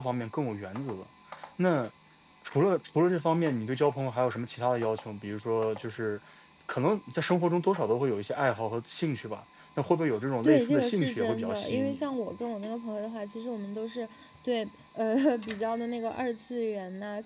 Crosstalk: present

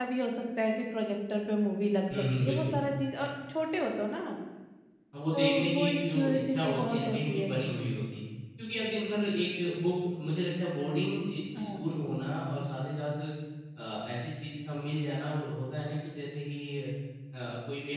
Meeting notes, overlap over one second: present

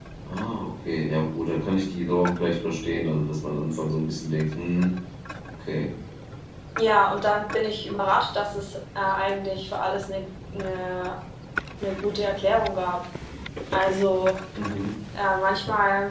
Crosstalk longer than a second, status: none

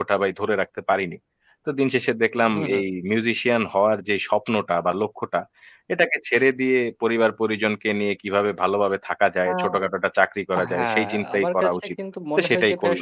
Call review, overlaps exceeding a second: present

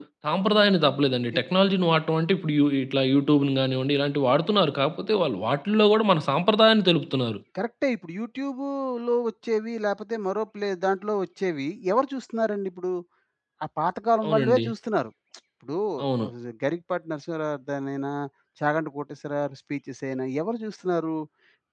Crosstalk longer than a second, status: none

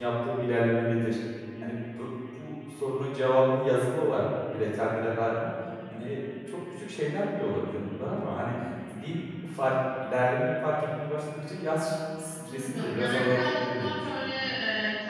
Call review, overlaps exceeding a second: present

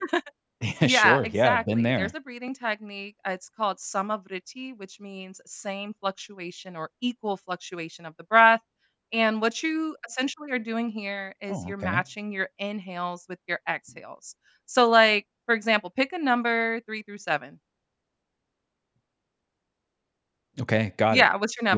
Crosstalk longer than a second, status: present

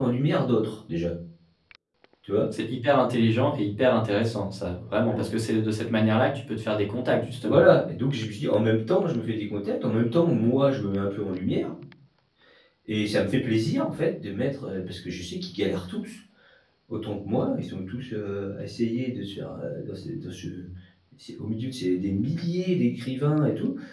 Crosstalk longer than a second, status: none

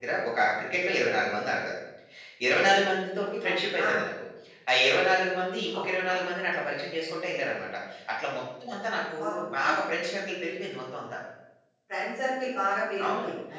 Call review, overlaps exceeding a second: none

